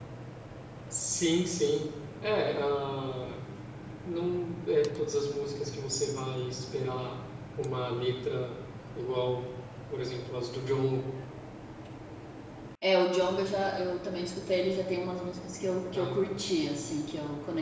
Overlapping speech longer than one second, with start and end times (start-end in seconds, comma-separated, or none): none